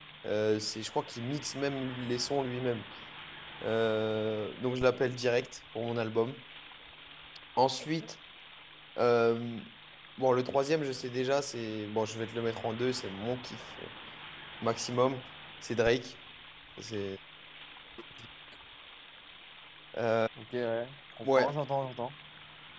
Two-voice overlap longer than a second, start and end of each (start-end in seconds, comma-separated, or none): none